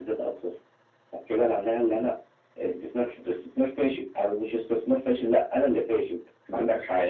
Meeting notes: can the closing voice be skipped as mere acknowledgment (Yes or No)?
No